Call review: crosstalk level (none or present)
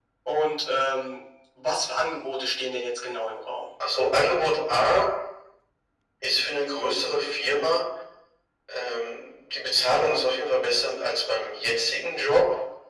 none